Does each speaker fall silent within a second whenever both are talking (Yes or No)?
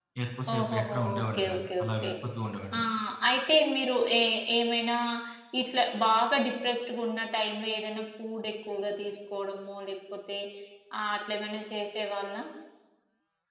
No